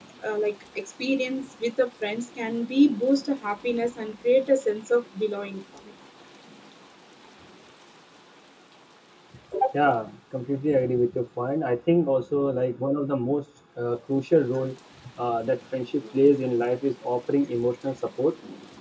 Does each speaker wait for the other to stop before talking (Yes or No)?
Yes